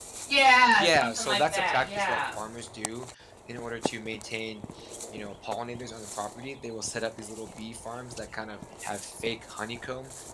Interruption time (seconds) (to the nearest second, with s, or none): 1 s